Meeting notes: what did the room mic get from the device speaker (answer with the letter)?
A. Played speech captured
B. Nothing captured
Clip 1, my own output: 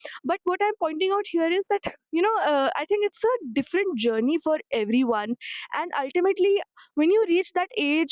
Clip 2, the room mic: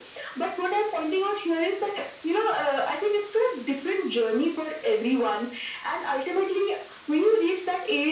A